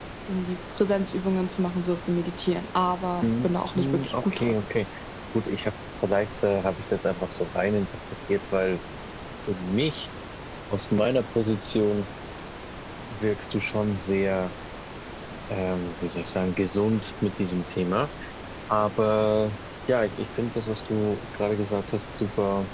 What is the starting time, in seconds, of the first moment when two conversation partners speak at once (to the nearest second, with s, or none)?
3 s